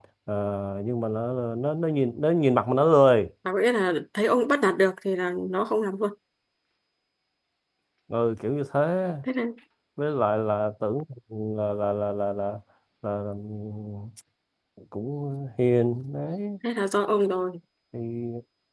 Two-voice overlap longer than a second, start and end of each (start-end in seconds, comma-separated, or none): none